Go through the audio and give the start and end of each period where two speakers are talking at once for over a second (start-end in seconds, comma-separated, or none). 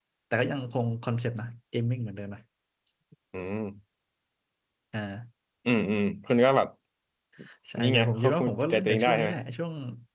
7.8-9.3